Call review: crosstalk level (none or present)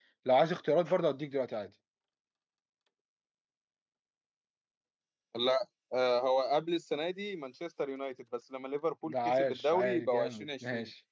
present